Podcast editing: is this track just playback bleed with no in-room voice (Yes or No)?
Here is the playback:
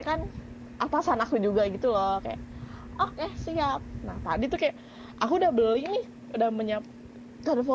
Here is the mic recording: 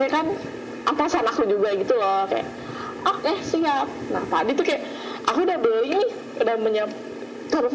Yes